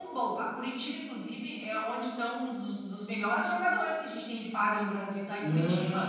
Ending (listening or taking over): taking over